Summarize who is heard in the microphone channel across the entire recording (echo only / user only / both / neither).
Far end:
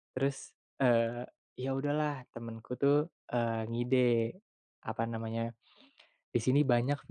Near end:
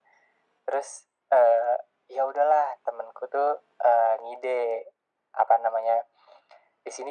echo only